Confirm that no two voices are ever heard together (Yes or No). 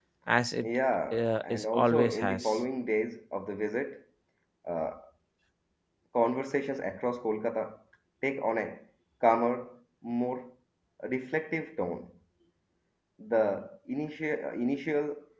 No